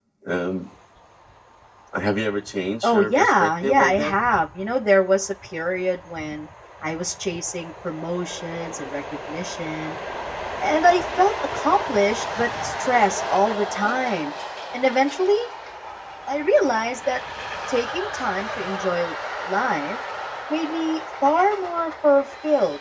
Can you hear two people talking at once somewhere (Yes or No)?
Yes